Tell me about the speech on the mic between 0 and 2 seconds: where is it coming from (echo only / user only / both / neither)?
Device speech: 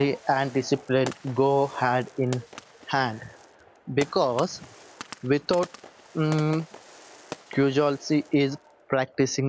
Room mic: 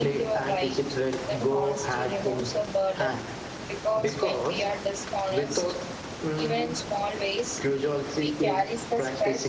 both